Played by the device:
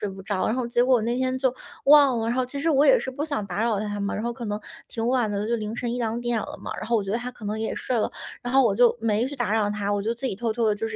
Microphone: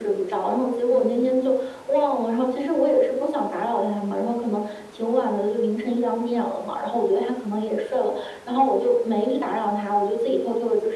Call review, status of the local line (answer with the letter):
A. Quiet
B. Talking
B